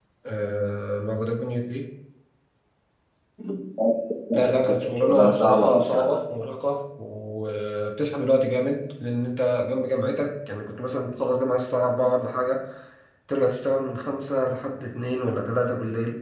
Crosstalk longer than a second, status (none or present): present